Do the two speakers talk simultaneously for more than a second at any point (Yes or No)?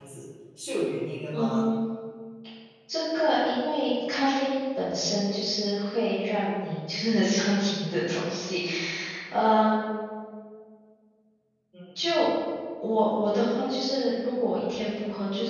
No